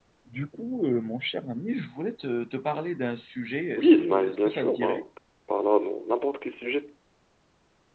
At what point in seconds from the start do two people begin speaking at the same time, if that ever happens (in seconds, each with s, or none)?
3.8 s